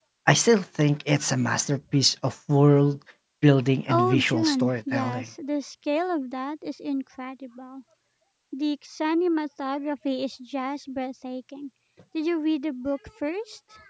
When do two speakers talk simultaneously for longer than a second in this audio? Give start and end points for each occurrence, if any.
3.9-5.3

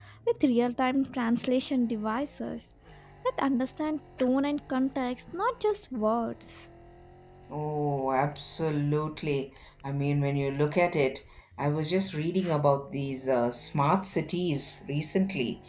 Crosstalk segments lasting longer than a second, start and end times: none

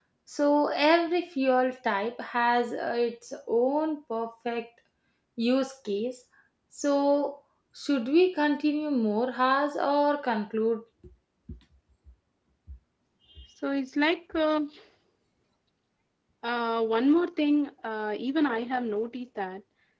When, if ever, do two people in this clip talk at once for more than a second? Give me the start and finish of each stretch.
none

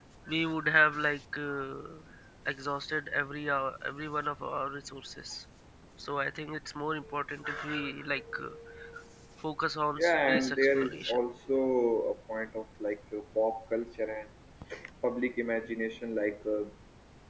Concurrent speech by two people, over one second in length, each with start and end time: 10.0-11.2

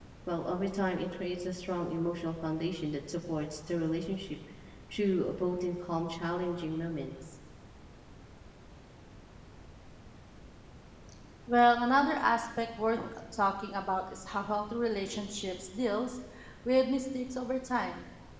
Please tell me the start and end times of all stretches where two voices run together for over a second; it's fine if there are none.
none

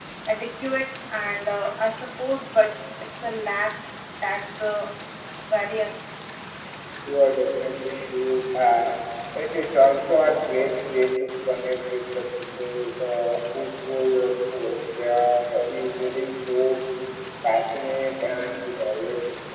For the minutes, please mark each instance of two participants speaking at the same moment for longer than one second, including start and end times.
none

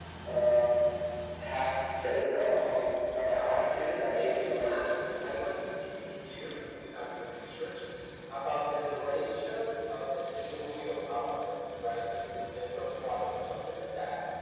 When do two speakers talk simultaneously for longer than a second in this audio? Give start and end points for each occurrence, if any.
3.1-4.8

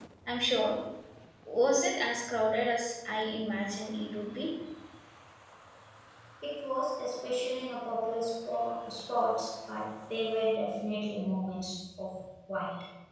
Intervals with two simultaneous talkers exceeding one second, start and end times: none

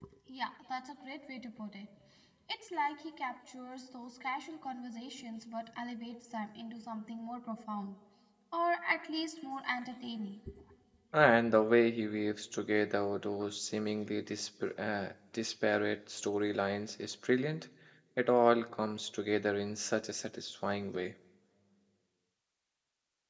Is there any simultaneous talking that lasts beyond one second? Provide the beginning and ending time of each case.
none

